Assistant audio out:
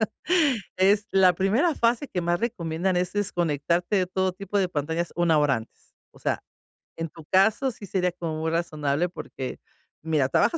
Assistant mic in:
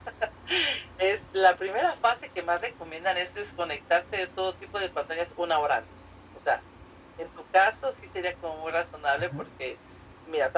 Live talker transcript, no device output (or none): Ajá,